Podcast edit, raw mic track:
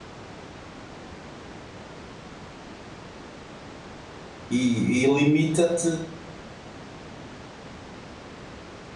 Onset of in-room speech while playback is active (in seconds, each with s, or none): 4.5 s